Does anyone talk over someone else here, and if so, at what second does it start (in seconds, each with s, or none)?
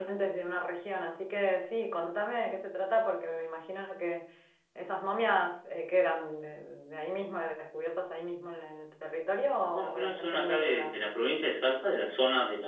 9.7 s